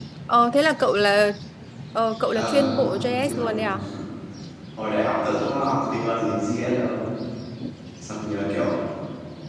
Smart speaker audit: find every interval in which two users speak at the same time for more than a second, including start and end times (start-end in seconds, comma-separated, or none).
2.3-3.8